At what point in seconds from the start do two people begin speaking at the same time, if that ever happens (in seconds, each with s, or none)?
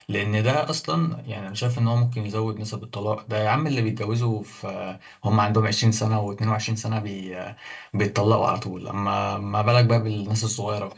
none